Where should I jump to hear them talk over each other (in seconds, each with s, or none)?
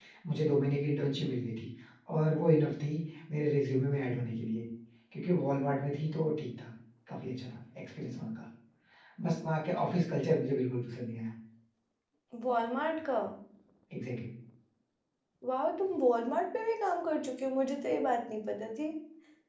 none